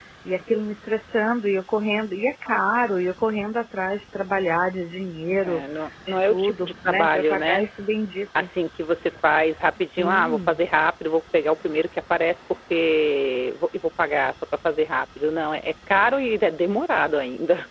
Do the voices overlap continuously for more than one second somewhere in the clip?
Yes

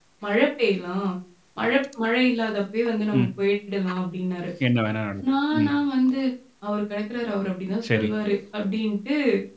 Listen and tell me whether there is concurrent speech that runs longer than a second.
No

